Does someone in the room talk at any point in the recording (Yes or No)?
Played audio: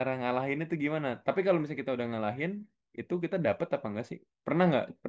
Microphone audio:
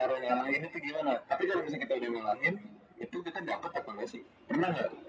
No